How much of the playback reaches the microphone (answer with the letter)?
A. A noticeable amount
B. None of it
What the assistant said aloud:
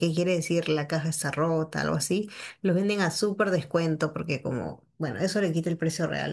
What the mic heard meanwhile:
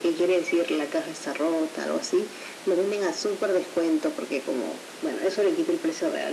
A